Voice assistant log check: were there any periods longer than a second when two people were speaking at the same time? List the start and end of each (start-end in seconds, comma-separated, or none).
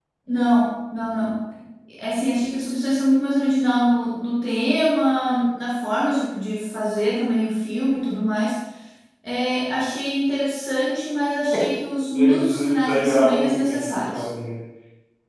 12.1-14.2